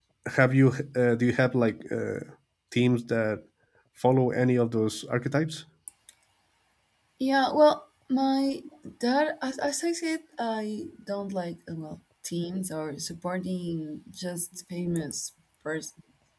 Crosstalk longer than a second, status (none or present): none